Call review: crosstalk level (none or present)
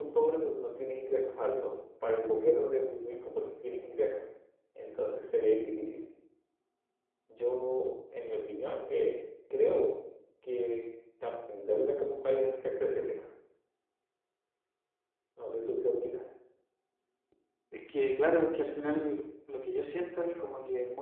none